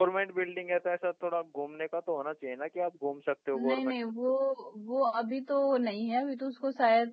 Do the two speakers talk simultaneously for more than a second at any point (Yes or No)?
No